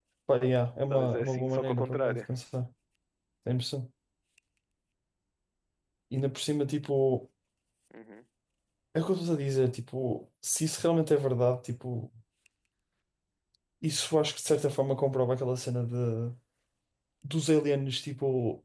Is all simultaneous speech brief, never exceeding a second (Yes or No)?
No